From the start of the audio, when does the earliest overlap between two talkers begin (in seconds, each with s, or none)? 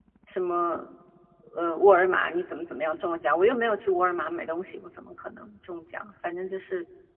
none